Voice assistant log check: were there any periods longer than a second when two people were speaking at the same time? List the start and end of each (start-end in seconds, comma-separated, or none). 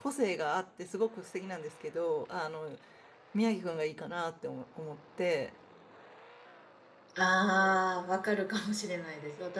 none